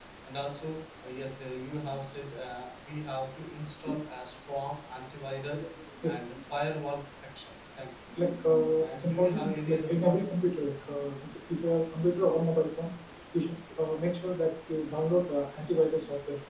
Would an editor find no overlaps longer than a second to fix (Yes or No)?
No